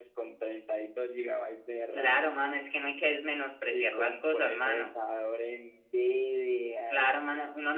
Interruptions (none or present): present